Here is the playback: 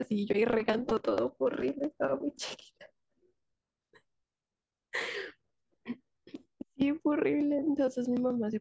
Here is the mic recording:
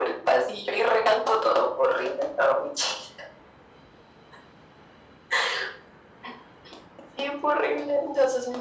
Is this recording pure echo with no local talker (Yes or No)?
Yes